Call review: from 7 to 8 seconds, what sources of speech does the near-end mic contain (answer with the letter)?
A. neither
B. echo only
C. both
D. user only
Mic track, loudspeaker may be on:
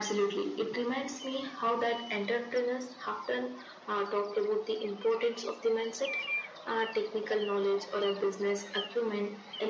B